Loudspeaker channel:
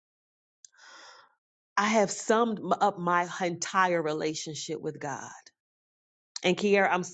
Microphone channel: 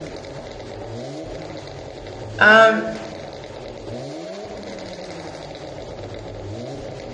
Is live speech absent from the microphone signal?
No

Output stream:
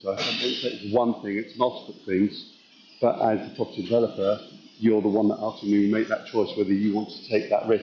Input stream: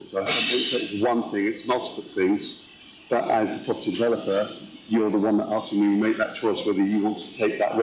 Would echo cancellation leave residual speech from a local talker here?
No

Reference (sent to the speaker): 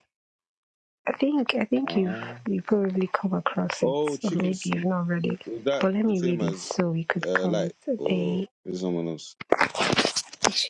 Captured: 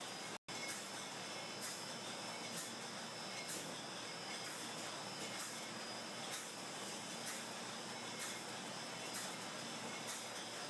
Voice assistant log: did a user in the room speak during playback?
No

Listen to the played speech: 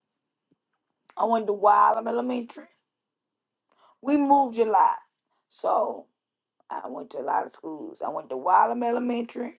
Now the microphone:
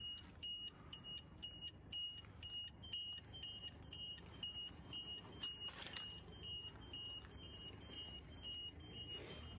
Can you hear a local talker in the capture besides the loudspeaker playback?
No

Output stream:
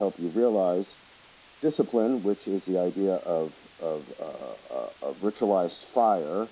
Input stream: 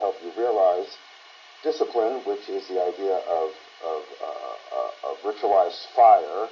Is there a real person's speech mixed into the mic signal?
No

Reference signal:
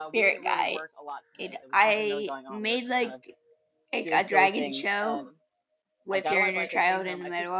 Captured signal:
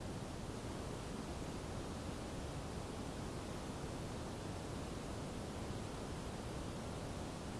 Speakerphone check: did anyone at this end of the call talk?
No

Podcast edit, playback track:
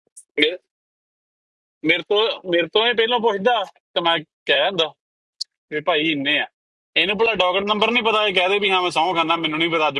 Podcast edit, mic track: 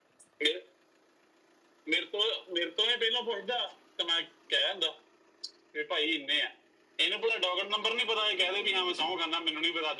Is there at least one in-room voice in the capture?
No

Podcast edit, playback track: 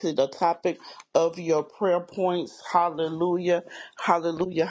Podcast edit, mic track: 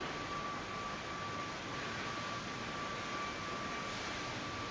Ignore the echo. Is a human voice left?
No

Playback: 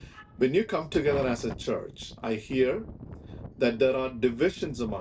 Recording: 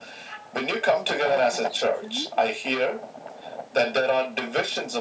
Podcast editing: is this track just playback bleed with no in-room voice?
No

